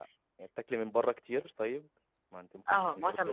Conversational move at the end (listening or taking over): taking over